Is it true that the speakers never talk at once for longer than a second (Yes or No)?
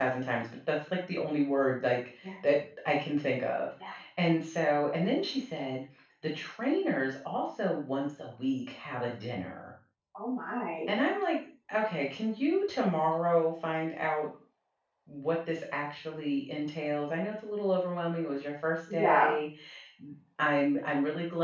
Yes